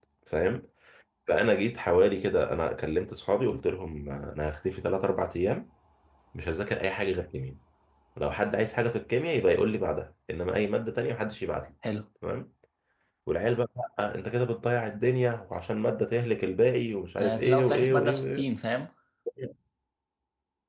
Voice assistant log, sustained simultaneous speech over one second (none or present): present